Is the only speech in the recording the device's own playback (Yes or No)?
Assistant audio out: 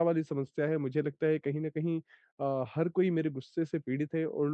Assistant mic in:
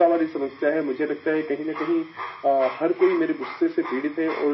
Yes